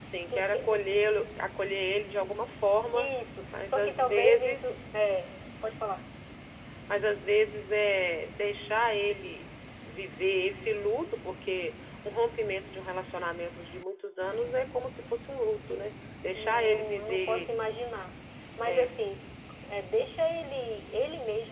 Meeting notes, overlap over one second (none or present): present